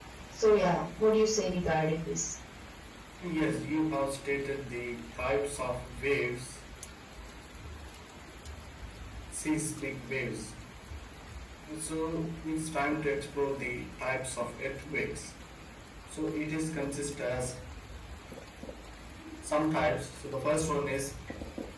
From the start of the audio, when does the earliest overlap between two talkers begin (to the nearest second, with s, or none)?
none